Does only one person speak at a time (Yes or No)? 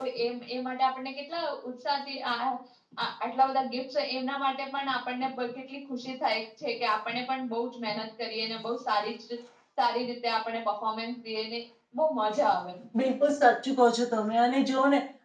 Yes